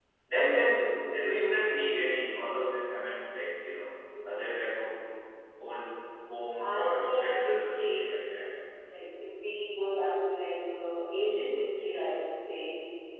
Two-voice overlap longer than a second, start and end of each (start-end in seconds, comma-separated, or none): 6.7-8.0